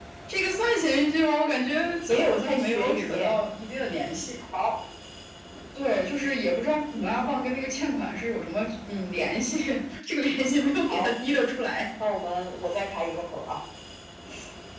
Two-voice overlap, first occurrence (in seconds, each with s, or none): 2.1 s